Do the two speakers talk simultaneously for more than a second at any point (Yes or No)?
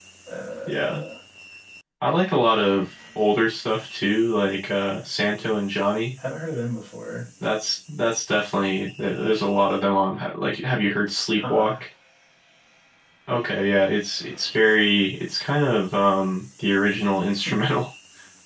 No